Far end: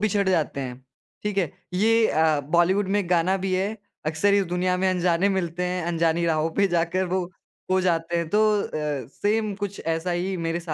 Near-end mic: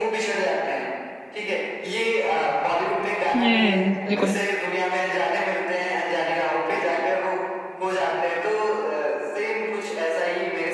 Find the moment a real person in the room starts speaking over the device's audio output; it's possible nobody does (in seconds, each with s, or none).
3.3 s